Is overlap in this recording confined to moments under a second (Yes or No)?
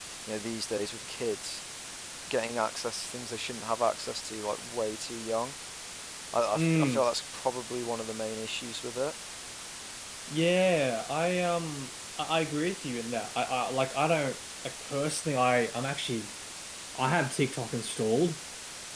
Yes